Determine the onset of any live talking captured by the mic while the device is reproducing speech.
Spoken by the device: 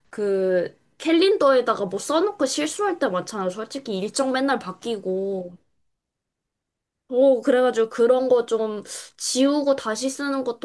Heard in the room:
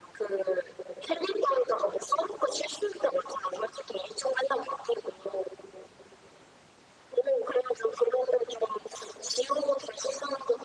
none

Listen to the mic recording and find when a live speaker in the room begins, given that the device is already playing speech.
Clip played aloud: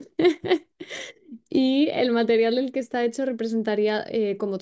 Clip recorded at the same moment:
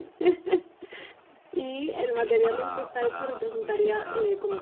1.9 s

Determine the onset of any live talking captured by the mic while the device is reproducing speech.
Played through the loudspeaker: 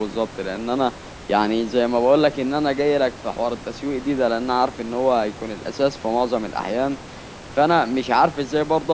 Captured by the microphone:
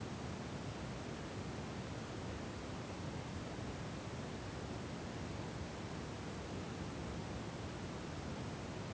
none

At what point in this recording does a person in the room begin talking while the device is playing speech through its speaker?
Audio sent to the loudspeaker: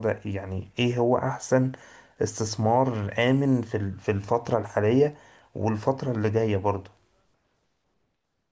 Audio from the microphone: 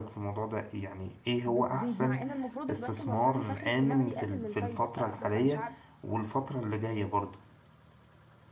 1.5 s

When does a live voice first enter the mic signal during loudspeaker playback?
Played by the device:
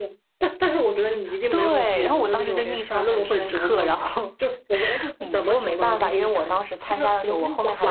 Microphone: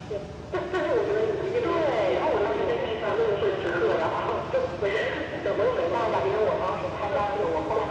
none

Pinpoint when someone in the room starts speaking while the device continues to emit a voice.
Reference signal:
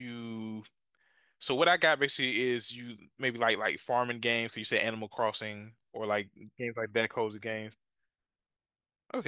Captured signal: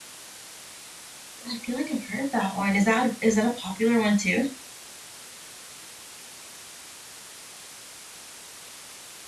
1.5 s

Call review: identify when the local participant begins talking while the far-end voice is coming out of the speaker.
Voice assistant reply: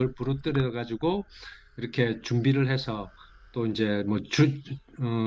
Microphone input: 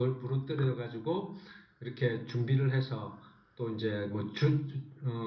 none

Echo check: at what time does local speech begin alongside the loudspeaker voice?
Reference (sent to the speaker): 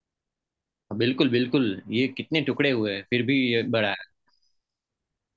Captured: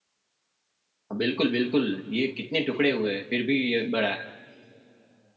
none

